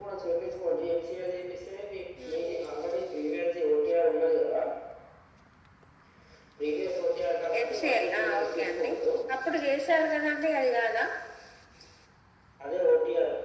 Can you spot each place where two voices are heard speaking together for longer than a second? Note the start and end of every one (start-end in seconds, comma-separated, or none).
7.6-8.9